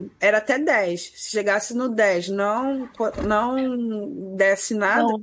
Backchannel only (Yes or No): Yes